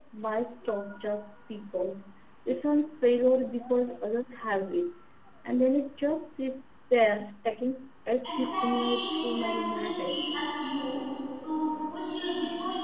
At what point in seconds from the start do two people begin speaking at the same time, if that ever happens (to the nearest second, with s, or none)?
8 s